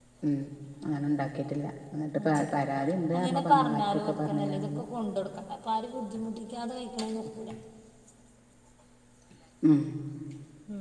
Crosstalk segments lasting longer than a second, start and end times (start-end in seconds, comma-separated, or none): 3.1-4.8